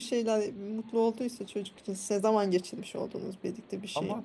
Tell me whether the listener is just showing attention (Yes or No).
No